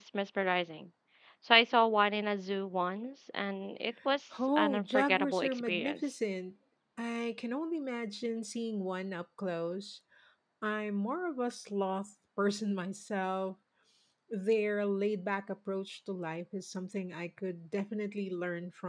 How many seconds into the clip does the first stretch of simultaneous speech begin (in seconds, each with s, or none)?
4.3 s